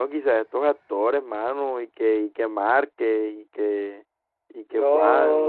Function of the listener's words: taking over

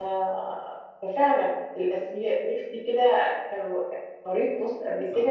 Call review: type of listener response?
taking over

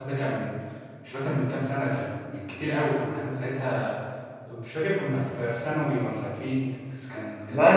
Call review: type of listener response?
taking over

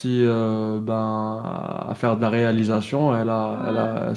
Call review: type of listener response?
listening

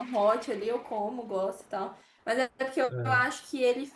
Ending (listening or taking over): listening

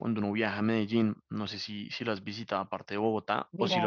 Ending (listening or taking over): taking over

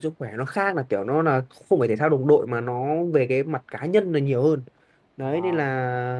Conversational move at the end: listening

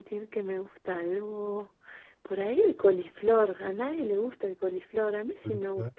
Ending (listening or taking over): listening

